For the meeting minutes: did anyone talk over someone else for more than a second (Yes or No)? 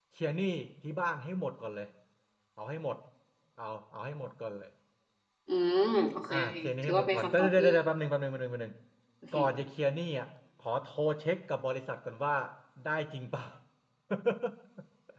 Yes